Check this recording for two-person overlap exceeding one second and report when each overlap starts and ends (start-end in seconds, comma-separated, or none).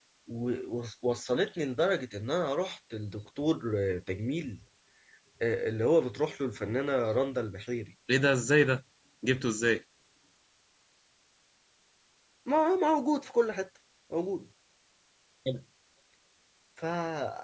none